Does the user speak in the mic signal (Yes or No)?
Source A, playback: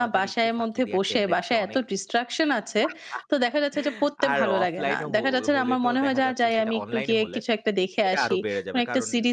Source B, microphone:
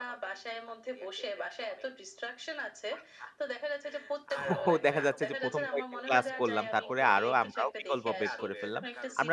Yes